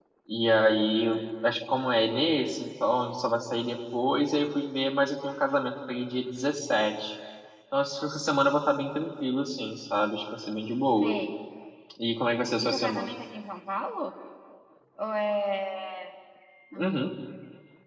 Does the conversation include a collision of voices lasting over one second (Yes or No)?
No